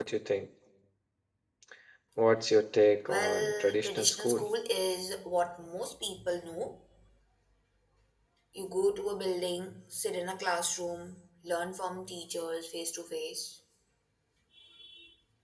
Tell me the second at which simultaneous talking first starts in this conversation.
3 s

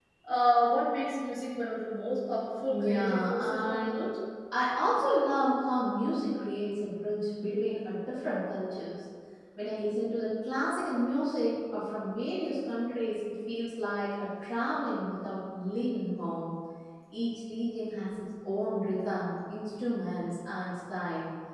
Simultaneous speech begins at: 3 s

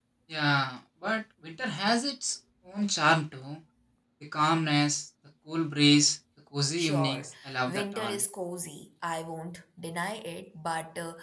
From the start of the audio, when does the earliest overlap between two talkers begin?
7 s

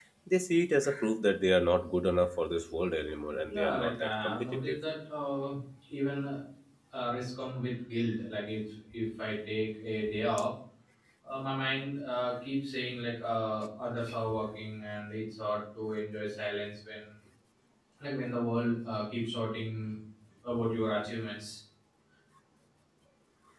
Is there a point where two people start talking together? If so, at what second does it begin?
3 s

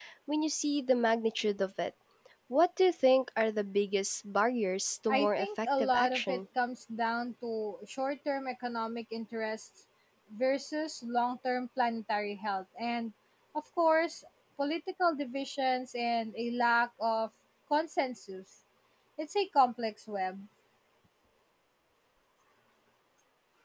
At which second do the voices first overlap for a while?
5 s

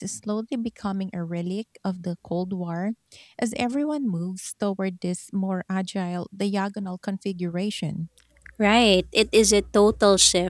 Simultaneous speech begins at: none

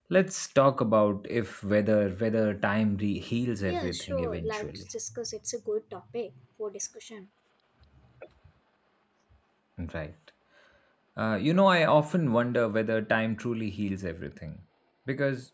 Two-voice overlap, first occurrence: 4 s

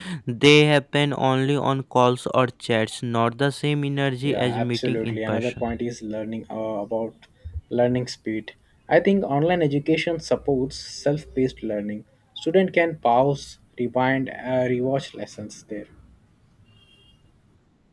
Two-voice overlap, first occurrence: 4 s

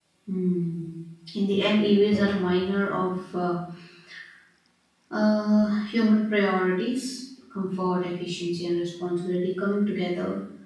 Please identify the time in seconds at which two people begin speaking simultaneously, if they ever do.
none

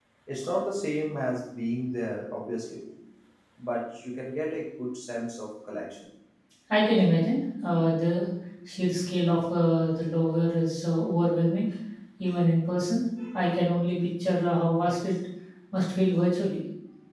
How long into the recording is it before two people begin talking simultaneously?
none

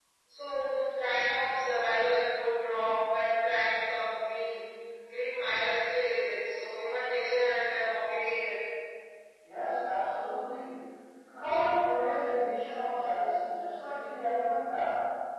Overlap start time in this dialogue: none

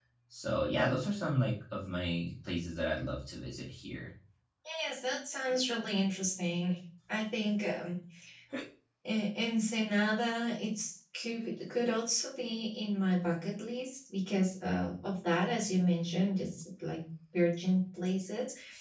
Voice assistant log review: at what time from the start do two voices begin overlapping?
none

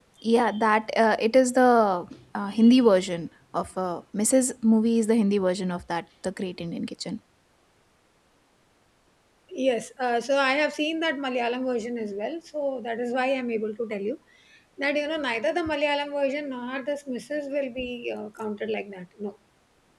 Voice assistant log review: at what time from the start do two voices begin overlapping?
none

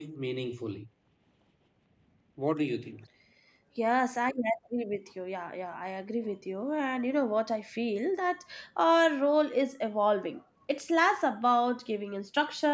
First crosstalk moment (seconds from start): none

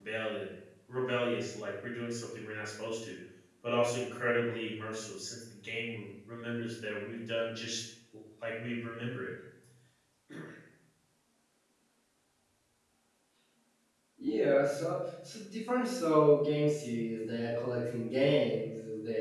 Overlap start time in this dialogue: none

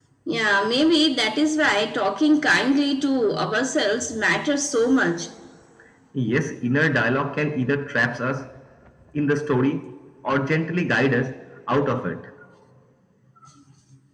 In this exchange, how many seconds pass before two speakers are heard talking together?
none

